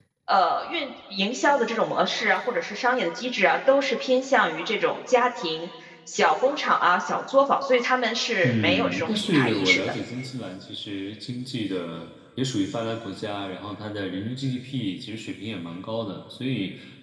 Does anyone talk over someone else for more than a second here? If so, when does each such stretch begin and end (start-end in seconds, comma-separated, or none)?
8.4-9.8